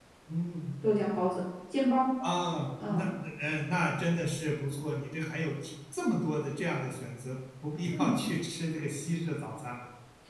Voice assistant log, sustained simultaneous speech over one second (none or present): none